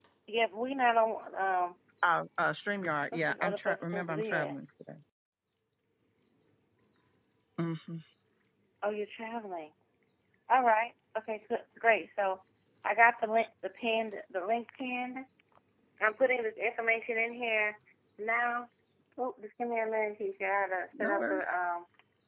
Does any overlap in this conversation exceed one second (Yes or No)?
Yes